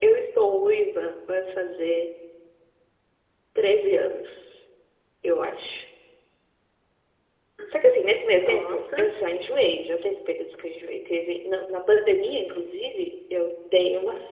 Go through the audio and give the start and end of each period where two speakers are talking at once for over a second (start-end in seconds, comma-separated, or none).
7.7-9.1